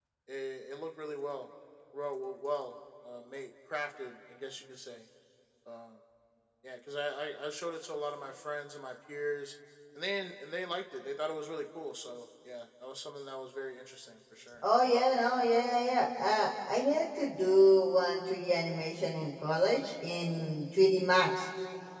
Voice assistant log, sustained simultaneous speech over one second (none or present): none